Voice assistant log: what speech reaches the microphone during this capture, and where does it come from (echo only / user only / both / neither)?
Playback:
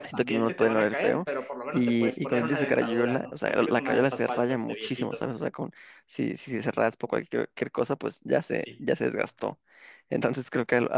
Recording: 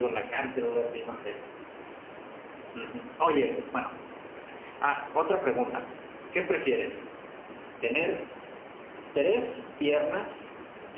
user only